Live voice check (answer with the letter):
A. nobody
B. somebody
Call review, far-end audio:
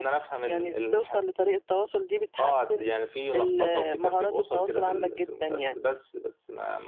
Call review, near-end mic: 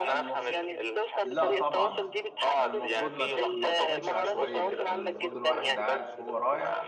B